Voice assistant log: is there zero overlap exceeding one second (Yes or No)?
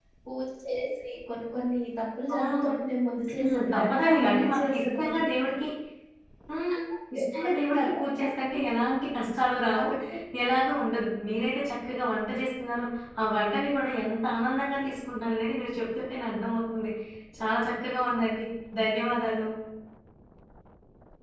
No